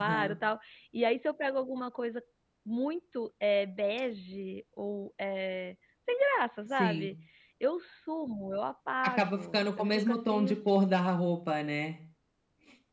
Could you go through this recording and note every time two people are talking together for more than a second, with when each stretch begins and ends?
9.0-10.6

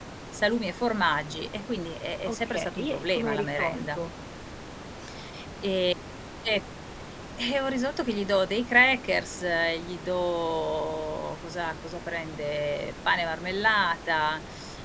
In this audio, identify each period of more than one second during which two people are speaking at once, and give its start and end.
2.3-4.0

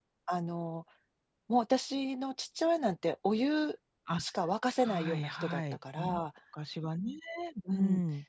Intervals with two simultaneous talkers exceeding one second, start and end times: 4.8-6.2

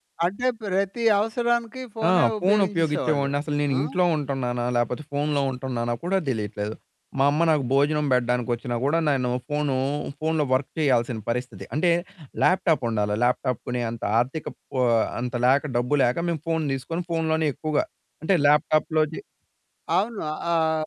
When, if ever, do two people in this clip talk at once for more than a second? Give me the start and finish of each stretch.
2.0-3.3

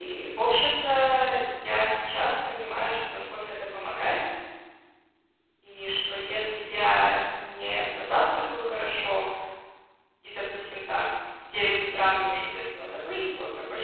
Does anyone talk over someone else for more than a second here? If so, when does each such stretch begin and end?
none

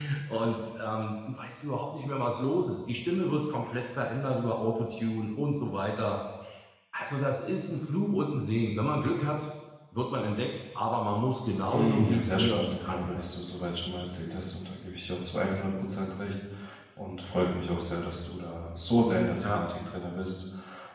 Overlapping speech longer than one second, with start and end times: 11.7-13.2

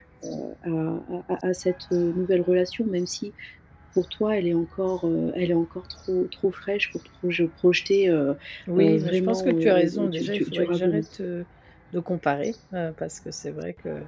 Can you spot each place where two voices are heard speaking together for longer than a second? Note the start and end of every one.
8.8-11.0

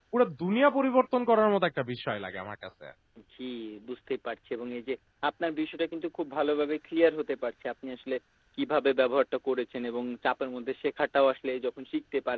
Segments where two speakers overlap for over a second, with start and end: none

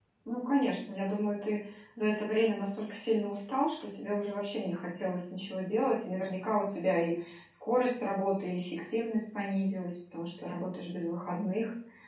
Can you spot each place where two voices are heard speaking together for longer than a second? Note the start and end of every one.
none

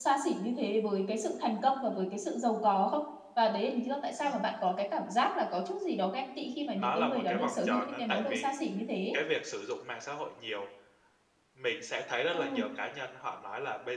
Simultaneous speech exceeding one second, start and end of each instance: 6.7-8.6

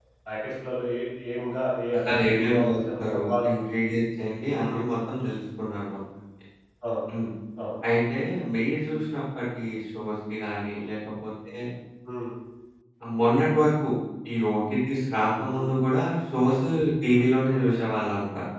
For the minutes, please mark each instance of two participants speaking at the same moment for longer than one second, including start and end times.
1.9-3.5

